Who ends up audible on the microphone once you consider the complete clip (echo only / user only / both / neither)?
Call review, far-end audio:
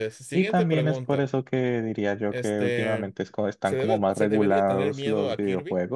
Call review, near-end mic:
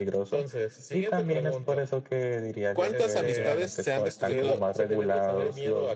both